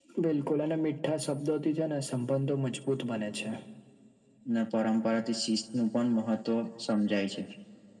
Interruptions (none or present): none